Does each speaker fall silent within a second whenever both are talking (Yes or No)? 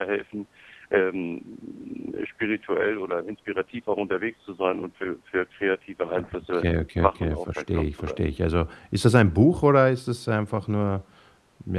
No